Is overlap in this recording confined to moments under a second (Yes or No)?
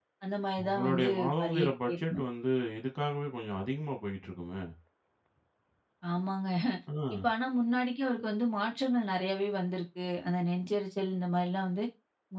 No